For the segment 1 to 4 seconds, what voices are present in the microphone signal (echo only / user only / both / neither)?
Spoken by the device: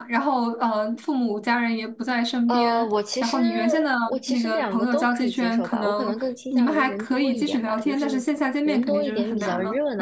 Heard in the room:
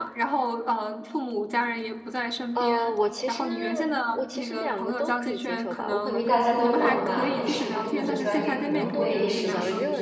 echo only